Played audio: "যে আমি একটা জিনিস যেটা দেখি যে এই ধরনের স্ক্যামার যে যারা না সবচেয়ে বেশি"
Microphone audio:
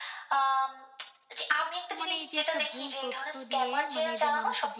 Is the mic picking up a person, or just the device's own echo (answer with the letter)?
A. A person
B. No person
A